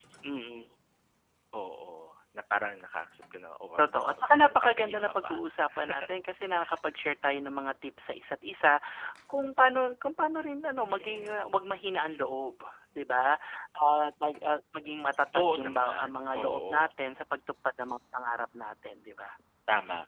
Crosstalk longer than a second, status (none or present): present